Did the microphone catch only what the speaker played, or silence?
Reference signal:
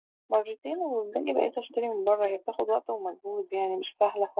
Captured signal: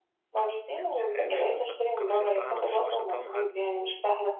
No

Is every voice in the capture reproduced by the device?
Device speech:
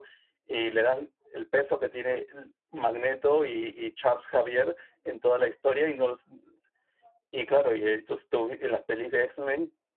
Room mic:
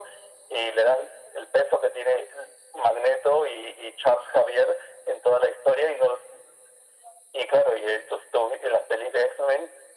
Yes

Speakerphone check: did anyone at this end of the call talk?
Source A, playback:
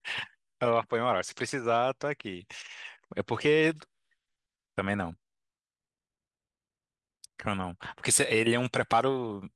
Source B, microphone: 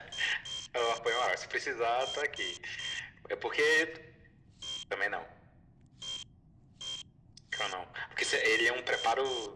No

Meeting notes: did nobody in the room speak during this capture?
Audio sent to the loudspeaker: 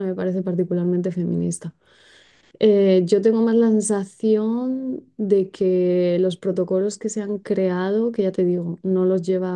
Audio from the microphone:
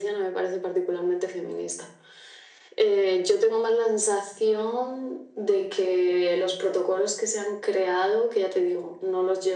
Yes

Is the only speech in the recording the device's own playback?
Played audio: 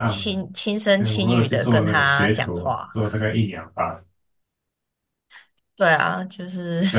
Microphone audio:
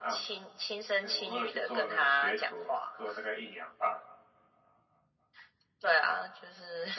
Yes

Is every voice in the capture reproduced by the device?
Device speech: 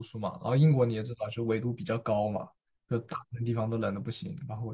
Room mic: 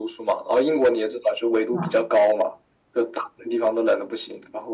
No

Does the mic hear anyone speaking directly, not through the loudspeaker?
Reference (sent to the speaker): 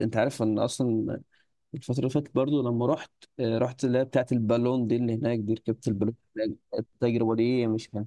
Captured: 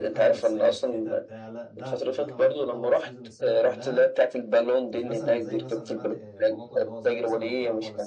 Yes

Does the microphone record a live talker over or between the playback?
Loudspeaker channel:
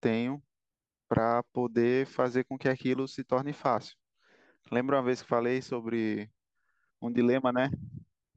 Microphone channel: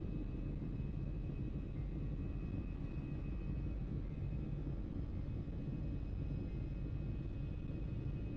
No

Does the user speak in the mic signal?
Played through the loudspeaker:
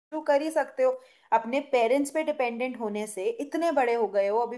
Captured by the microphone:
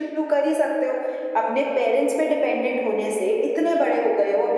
No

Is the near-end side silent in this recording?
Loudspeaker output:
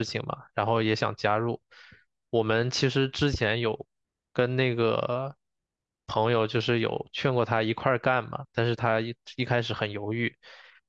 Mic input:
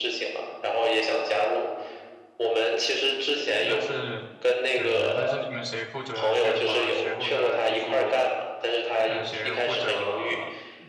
No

